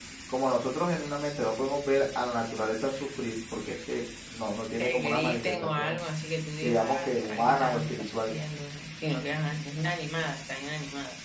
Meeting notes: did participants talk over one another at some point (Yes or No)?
Yes